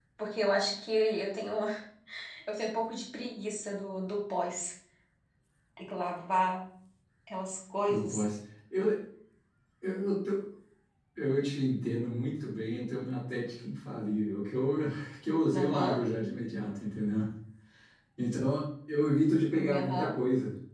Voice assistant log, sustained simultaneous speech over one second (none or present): none